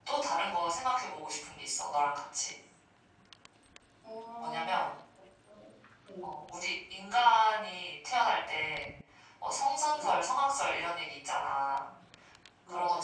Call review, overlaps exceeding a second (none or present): none